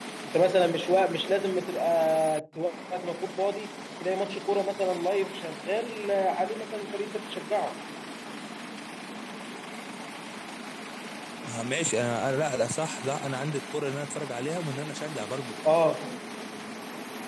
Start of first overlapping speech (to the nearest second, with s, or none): none